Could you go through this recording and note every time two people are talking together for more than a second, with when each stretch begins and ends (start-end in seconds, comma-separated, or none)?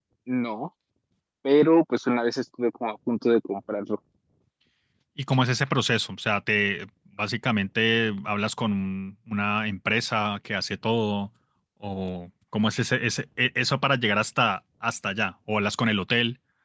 none